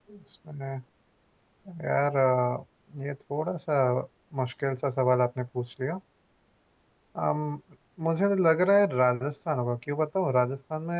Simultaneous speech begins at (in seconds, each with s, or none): none